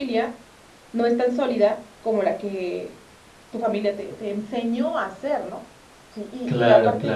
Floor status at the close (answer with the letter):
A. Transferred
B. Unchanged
B